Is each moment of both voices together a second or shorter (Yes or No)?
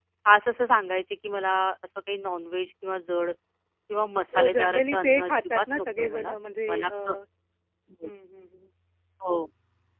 No